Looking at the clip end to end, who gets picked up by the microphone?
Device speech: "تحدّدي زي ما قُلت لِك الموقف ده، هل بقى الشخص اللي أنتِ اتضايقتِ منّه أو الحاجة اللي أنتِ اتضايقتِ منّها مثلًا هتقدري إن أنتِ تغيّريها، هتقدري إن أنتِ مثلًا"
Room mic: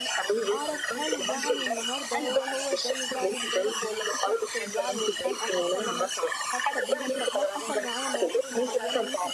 both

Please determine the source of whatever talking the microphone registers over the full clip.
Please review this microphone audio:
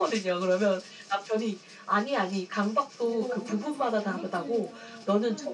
both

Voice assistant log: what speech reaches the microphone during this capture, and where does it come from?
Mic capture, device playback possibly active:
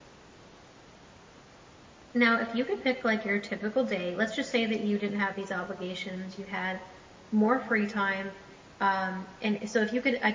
user only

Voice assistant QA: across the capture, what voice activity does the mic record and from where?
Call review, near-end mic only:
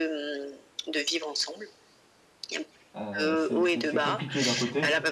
both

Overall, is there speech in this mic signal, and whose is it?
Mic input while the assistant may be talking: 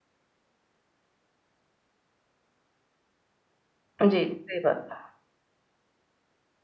user only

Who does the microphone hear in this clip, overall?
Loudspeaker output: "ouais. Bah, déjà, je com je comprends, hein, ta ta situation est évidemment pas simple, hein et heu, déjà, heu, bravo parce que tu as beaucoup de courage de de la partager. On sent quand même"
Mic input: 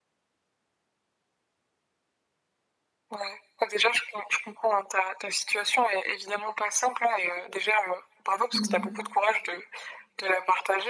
both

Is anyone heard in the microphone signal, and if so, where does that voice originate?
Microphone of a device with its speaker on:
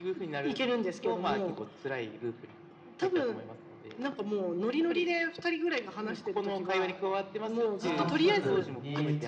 both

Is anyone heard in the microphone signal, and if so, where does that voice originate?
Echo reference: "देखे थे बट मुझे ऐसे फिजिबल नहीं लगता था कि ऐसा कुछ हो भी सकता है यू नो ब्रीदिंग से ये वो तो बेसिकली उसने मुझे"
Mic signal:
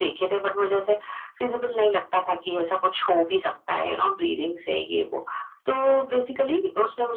echo only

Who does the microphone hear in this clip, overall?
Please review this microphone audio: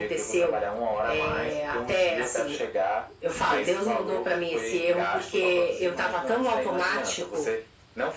echo only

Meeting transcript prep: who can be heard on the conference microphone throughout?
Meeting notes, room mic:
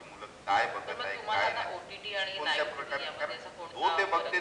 echo only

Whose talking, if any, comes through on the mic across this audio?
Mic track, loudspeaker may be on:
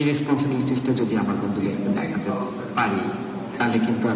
both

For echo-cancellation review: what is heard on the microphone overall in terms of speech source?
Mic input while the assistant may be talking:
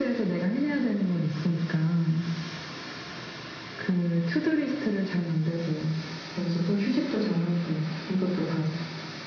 echo only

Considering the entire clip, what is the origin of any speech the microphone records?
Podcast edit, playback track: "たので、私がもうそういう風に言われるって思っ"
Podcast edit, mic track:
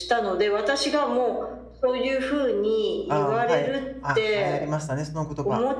both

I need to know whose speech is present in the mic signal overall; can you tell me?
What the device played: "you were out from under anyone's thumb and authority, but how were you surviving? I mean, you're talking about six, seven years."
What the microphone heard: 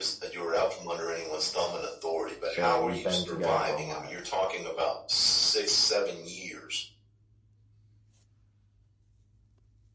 both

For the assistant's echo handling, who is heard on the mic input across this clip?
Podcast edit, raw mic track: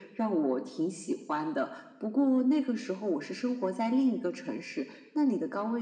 echo only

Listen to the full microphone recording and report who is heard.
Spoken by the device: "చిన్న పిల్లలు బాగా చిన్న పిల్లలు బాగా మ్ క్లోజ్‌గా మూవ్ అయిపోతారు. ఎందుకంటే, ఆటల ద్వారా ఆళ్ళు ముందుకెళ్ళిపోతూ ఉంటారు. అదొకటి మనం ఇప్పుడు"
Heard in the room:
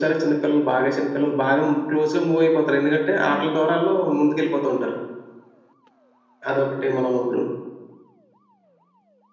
echo only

